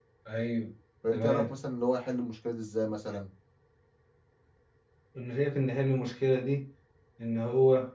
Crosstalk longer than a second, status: none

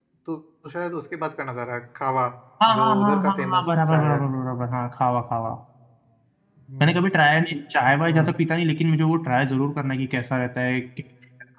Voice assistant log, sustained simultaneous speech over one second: present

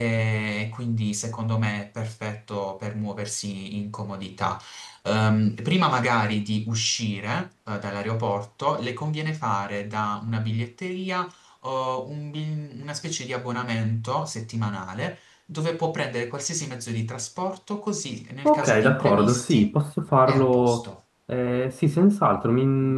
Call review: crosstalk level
present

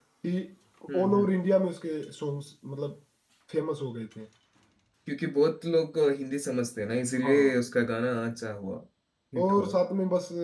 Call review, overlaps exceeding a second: none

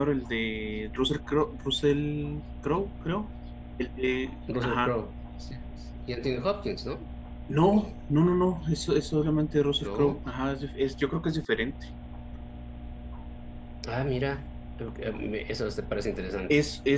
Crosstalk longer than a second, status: none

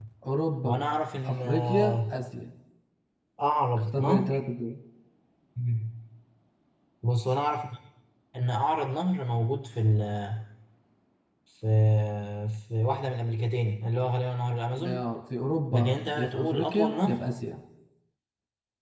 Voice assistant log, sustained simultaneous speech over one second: present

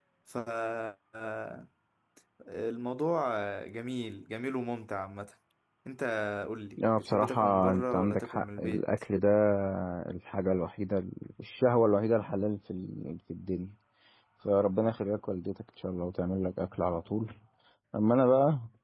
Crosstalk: present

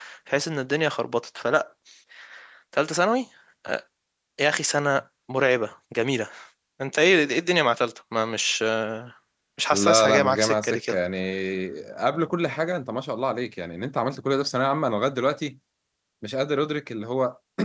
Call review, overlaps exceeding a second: present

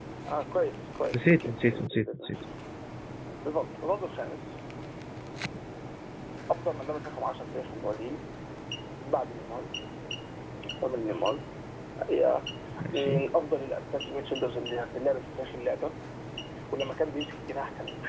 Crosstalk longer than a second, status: present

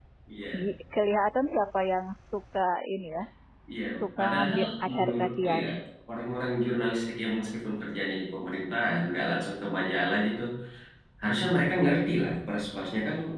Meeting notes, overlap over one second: present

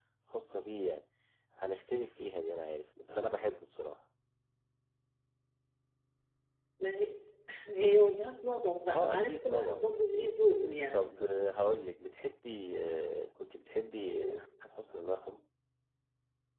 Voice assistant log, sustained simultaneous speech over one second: present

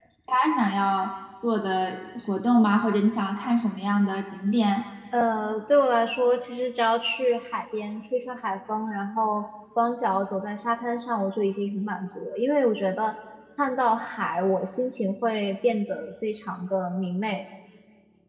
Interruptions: none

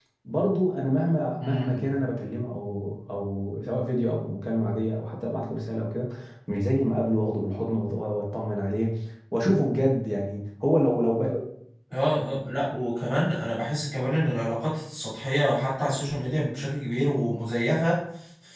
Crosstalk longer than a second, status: none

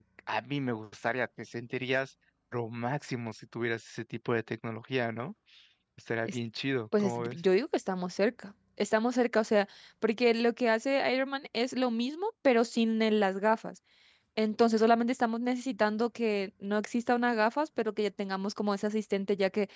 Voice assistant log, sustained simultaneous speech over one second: none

